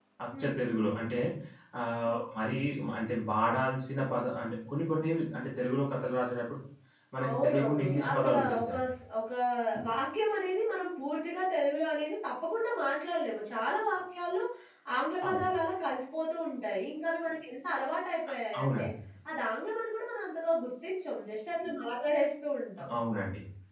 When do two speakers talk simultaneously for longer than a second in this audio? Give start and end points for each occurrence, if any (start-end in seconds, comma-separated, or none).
7.3-8.9